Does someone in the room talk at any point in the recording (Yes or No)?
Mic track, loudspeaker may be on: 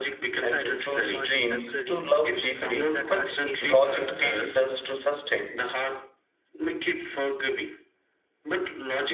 Yes